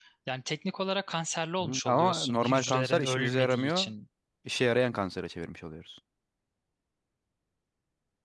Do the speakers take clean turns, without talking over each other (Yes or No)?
No